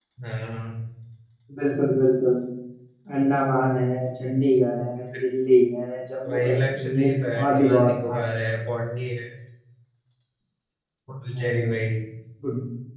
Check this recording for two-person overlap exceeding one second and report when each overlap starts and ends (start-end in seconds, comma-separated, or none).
6.3-8.2